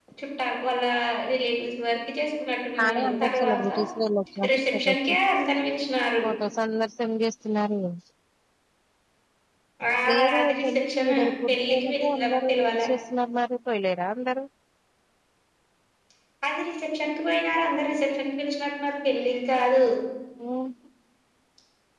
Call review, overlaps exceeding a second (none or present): present